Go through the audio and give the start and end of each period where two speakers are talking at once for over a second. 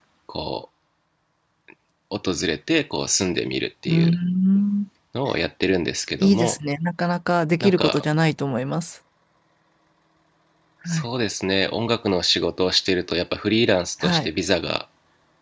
none

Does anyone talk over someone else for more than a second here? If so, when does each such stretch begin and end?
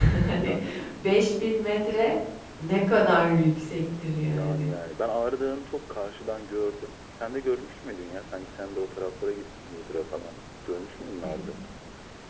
none

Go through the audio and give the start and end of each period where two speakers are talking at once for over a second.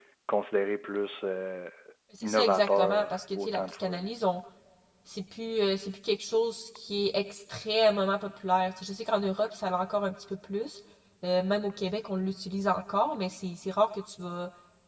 2.2-4.0

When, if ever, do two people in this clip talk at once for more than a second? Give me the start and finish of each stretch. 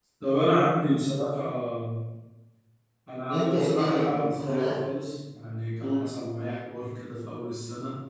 3.3-4.8

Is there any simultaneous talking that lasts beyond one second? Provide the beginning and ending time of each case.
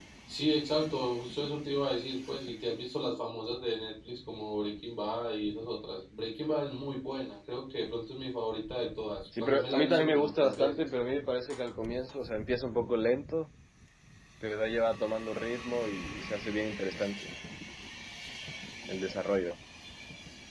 9.4-10.9

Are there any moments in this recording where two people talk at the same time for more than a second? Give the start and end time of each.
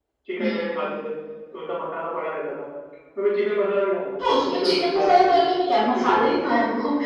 4.2-5.5

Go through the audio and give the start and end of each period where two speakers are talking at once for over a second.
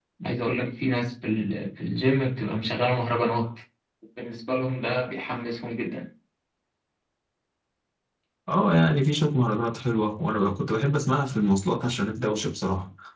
none

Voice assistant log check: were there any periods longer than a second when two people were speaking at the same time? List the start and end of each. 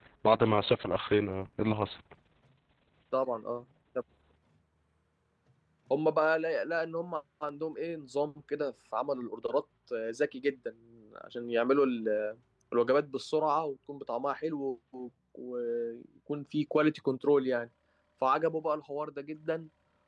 none

